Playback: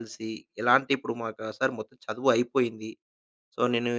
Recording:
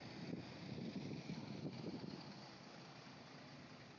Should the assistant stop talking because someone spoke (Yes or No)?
No